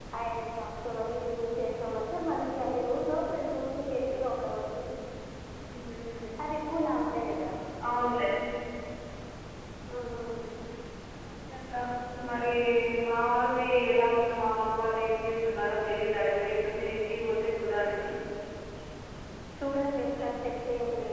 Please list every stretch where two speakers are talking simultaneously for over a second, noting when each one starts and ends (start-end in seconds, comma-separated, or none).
none